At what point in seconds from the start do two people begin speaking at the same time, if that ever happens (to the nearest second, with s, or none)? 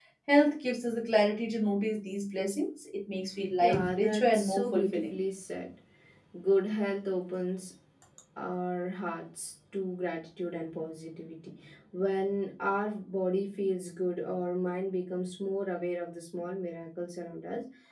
4 s